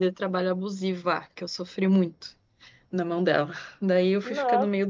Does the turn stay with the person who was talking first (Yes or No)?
Yes